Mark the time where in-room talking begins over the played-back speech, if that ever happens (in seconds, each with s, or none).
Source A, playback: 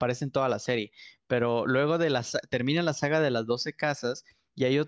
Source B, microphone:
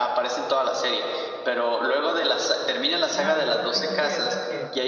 3.1 s